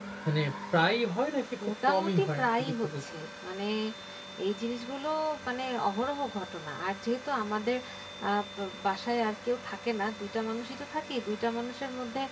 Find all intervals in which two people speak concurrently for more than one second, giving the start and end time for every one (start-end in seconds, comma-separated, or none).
1.6-3.0